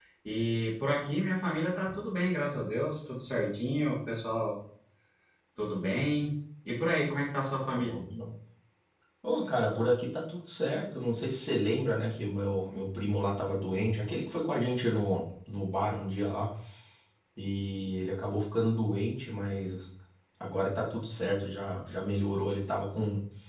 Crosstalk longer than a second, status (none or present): none